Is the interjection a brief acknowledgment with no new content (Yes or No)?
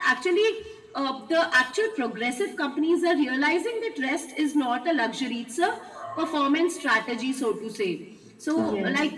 Yes